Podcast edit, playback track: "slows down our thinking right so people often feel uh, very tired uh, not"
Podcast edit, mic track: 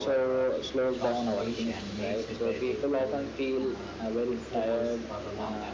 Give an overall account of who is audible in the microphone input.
both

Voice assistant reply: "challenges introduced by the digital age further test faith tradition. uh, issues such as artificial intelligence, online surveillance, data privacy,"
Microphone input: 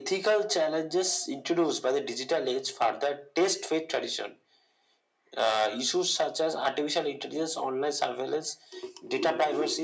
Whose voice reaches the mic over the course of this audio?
echo only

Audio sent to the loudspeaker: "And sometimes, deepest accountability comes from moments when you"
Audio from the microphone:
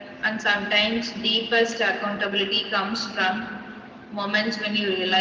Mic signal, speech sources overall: echo only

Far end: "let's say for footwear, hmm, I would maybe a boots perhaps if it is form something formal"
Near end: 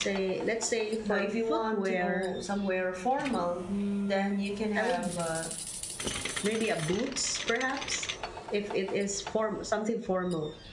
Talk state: both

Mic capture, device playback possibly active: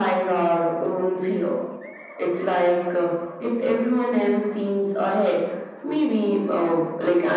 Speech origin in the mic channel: echo only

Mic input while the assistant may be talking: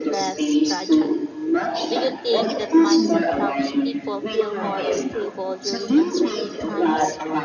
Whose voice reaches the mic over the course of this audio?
both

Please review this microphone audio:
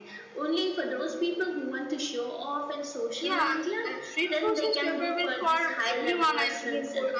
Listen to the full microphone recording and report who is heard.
both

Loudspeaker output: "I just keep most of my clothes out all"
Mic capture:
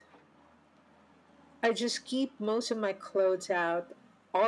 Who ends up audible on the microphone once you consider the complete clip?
echo only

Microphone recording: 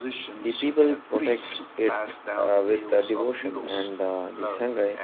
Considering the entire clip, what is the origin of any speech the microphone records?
both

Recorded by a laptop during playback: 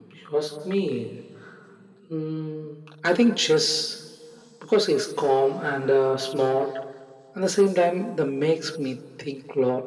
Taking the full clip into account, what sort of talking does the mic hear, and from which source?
echo only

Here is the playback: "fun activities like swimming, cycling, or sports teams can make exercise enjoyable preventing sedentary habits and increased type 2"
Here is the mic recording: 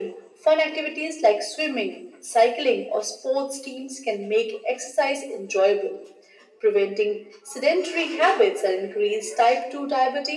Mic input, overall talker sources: echo only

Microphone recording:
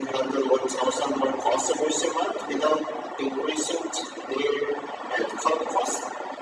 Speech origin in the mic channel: echo only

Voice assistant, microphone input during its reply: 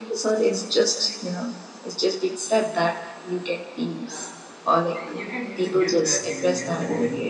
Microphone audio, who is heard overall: both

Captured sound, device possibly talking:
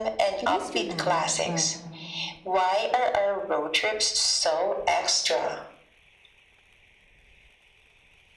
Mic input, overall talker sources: both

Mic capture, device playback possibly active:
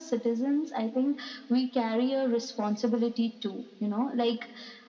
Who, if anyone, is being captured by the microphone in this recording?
echo only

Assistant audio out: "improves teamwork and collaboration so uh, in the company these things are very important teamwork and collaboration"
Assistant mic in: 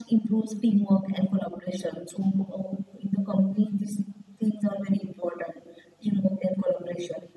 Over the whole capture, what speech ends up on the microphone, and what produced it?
echo only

